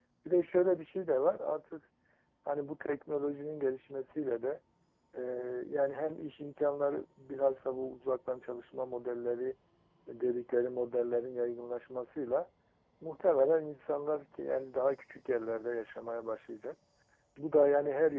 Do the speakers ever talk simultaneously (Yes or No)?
No